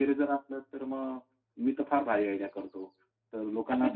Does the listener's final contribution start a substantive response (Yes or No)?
Yes